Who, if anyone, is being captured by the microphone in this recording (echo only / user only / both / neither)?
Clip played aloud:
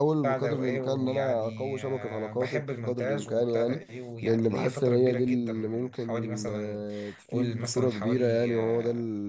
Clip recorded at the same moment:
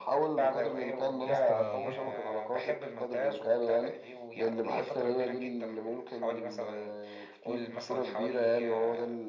both